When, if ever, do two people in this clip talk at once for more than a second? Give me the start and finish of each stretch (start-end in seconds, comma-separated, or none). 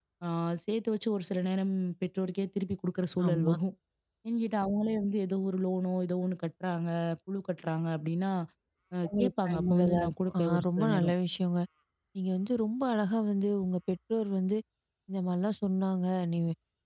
9.1-11.1